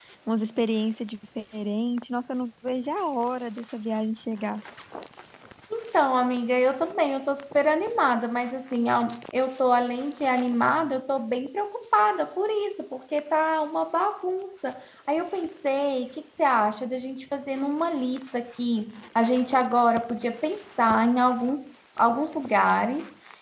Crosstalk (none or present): none